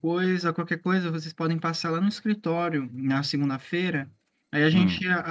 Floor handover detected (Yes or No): No